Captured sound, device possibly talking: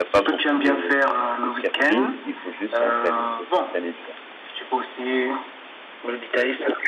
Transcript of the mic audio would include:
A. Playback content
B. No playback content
A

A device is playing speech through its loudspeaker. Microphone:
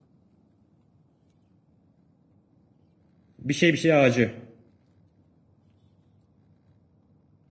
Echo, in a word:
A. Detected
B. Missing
B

